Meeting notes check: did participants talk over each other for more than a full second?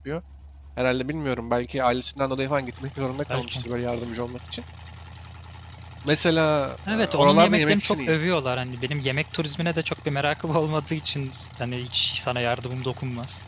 Yes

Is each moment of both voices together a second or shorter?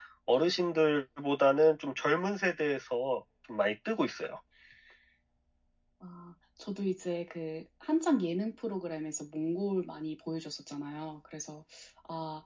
Yes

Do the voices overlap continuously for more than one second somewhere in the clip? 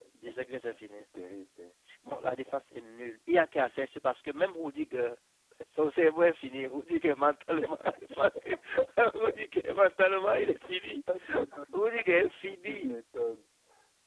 No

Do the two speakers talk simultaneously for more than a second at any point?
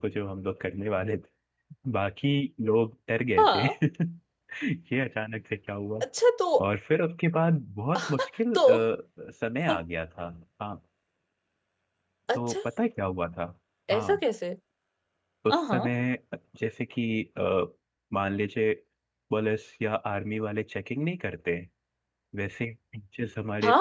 No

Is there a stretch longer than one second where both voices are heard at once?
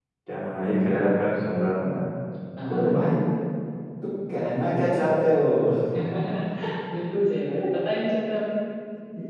No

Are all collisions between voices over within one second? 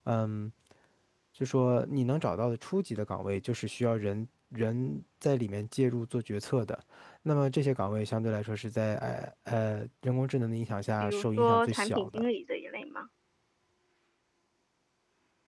No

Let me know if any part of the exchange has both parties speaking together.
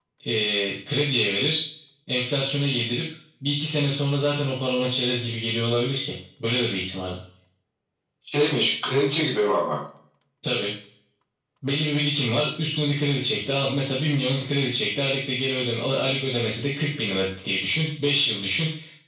No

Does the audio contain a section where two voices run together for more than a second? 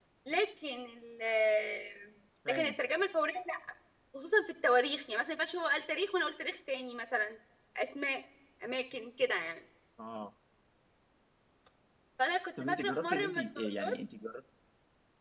Yes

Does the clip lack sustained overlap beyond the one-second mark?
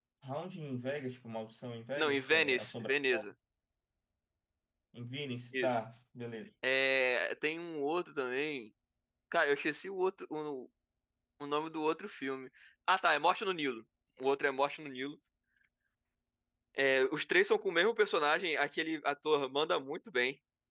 No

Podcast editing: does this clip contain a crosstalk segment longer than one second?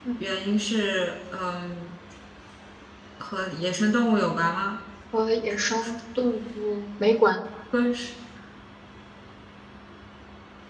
No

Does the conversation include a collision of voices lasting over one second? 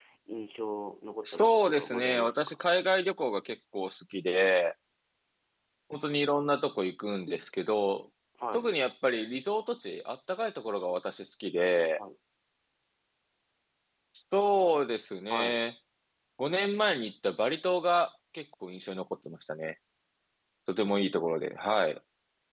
Yes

